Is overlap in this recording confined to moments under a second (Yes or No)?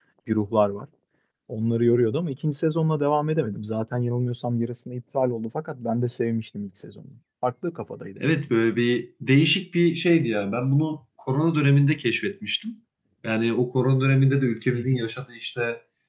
Yes